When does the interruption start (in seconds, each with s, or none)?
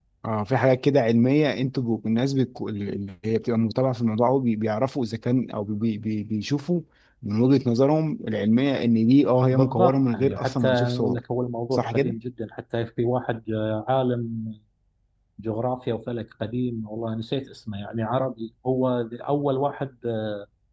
9.5 s